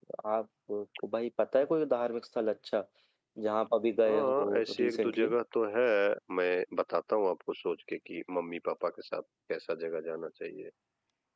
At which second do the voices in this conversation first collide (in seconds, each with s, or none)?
4.0 s